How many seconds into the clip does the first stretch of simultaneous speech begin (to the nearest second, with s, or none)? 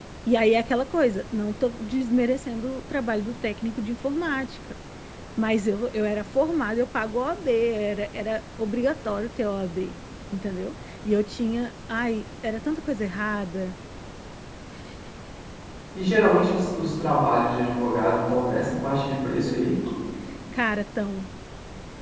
none